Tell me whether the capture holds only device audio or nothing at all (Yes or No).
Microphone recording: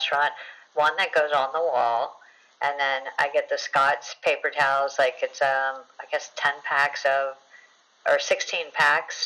Yes